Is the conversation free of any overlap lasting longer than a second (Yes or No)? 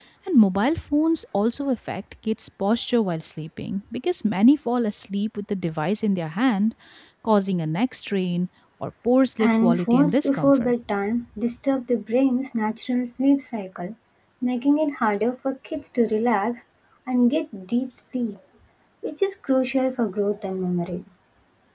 No